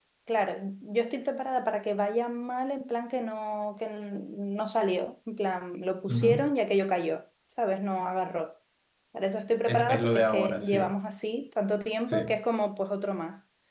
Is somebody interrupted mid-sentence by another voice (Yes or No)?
Yes